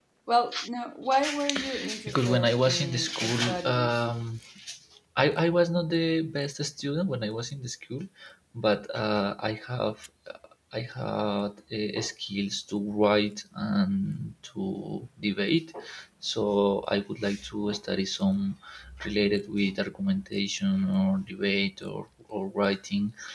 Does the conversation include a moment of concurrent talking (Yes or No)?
Yes